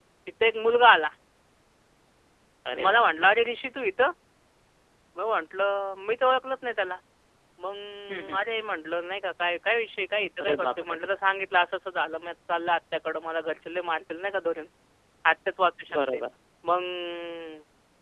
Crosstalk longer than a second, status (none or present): none